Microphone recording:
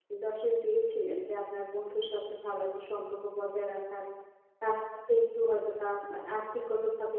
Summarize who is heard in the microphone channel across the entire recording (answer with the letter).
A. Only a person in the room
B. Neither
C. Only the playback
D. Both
A